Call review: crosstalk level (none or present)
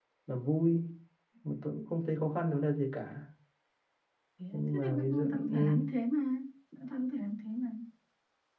present